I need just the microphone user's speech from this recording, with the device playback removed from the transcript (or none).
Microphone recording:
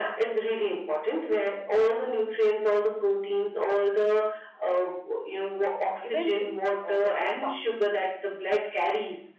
uh, eventually uh, it'll stop